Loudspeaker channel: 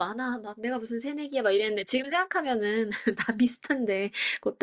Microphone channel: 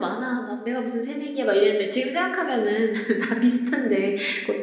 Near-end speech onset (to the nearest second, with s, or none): none